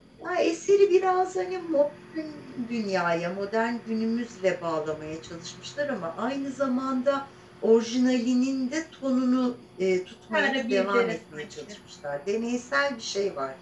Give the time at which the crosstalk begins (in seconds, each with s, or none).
10.3 s